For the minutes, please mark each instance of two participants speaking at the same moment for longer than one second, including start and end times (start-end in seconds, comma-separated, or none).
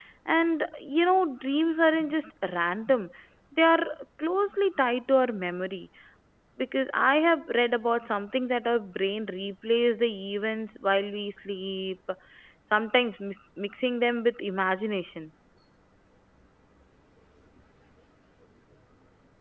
none